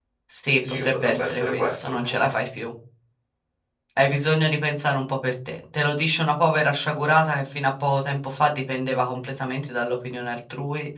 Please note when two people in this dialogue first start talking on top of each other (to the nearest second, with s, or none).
1 s